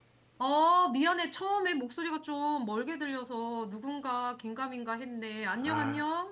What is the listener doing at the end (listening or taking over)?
taking over